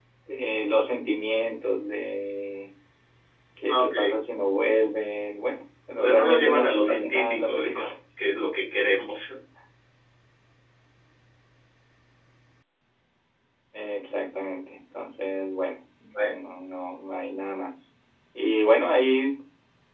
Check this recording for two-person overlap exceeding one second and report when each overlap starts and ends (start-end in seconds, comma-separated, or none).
6.0-7.8